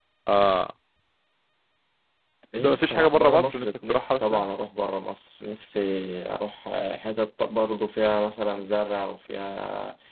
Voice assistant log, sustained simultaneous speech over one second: present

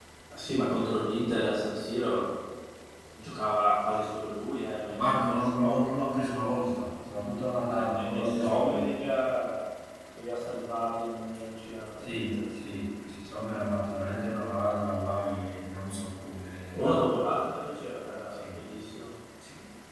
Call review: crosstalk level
present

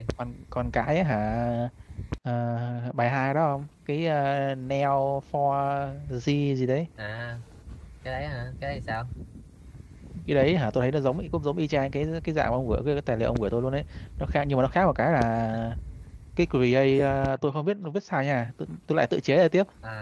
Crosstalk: none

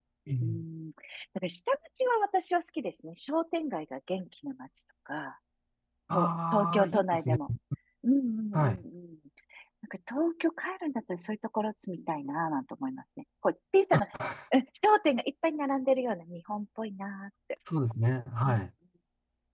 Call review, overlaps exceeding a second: present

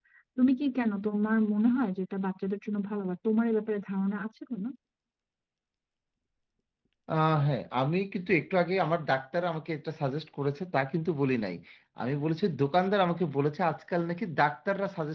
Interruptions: none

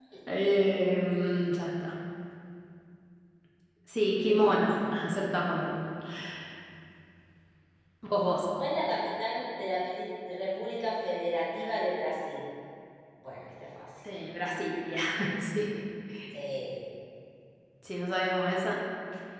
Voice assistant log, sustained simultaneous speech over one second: none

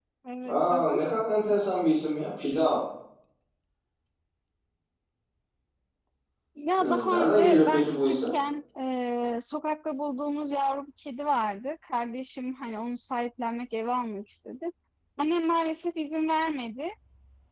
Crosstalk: present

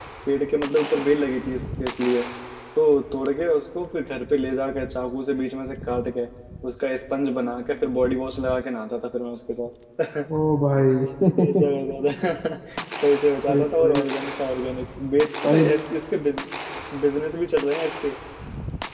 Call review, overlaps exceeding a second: none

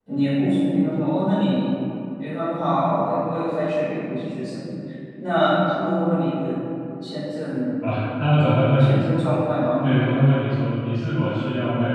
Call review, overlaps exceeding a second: none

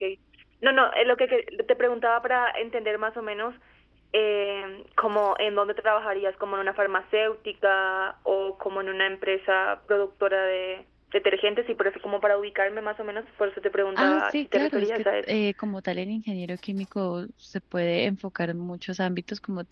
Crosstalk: present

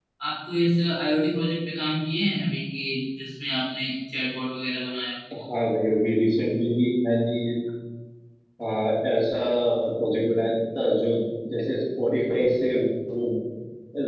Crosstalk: none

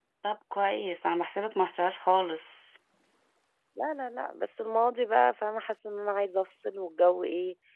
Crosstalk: none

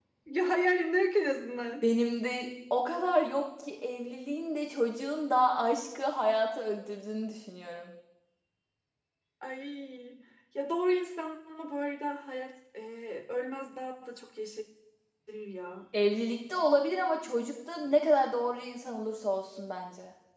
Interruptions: none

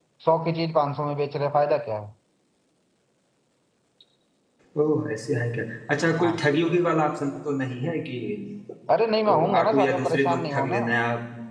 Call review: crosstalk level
present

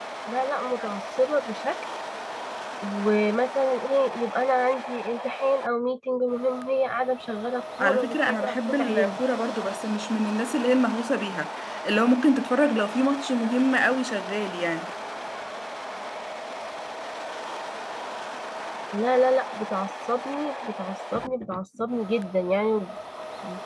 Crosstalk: present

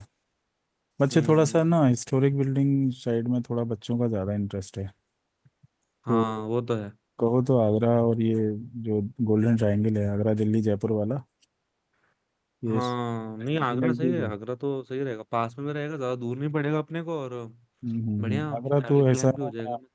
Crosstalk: present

